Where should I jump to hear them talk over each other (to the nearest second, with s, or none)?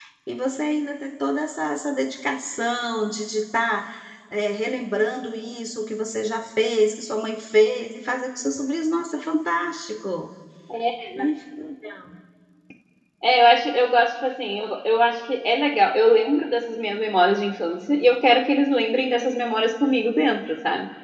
none